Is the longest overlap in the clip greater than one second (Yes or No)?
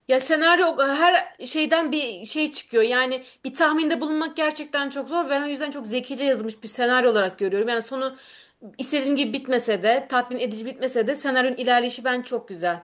No